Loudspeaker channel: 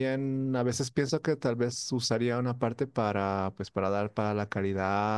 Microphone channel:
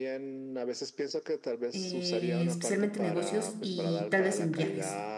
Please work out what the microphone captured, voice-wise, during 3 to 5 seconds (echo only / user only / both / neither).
both